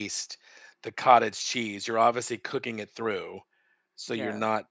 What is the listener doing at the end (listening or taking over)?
listening